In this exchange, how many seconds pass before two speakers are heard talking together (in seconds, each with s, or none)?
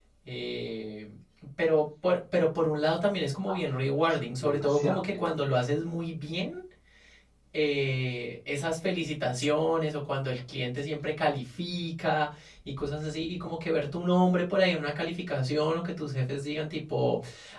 4.1 s